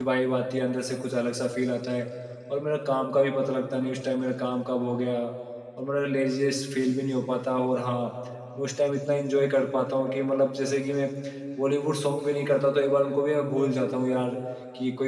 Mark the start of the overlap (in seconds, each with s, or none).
none